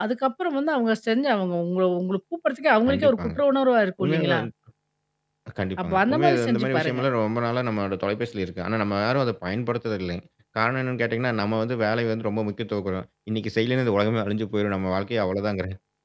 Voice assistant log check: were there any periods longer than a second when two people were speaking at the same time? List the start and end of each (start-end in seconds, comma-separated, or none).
5.8-7.0